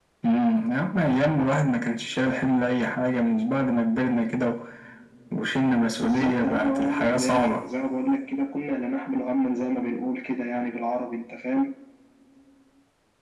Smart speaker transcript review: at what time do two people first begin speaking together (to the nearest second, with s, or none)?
6 s